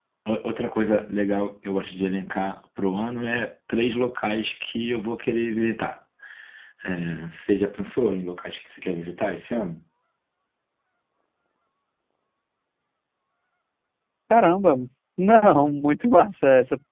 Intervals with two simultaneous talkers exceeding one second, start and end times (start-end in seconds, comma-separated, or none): none